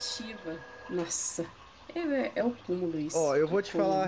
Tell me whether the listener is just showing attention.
No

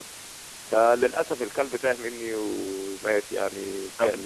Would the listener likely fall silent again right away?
No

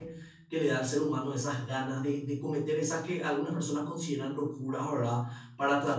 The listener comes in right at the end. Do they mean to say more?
No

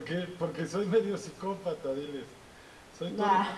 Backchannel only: Yes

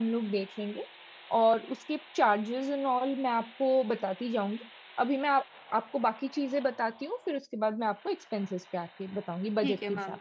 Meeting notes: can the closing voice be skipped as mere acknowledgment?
No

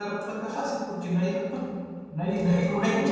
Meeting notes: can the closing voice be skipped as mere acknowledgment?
Yes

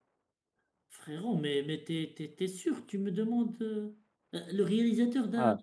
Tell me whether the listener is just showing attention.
No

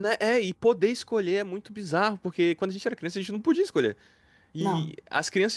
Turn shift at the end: No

